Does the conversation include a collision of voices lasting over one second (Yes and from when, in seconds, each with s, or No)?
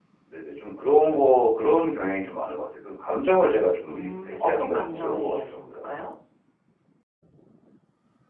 Yes, from 3.9 s